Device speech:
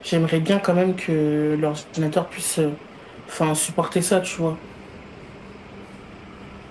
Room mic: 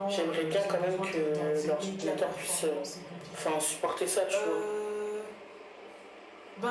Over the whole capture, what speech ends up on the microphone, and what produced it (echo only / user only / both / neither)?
both